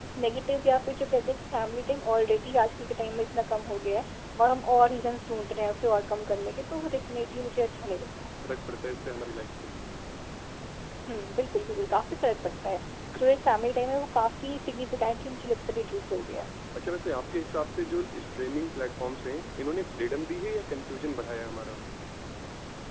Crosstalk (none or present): none